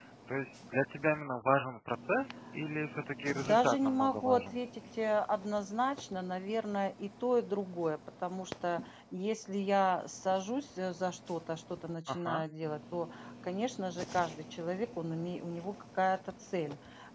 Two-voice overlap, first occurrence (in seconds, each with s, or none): 3.3 s